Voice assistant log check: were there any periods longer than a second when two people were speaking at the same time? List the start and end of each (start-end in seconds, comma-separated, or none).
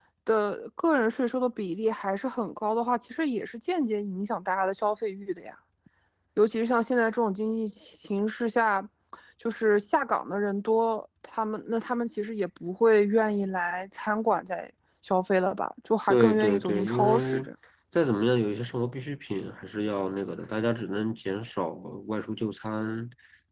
16.1-17.4